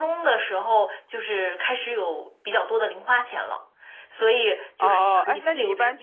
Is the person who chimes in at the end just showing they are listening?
No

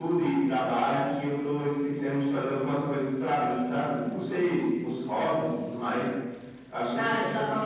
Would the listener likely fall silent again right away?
No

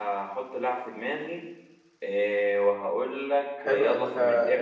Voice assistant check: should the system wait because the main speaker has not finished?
No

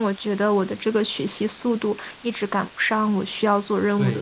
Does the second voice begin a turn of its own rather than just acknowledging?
Yes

